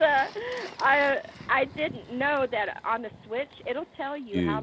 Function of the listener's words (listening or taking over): listening